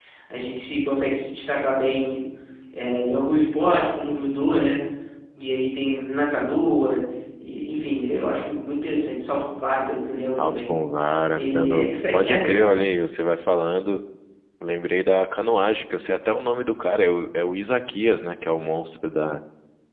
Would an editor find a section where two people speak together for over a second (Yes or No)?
Yes